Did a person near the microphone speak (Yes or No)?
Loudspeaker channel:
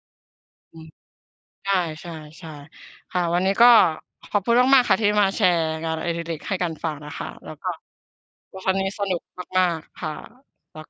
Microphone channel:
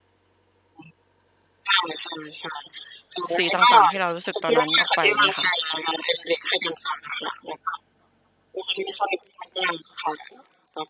Yes